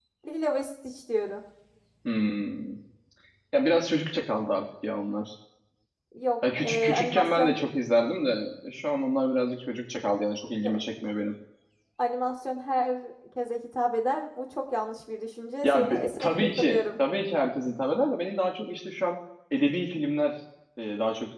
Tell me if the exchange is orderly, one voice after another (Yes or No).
No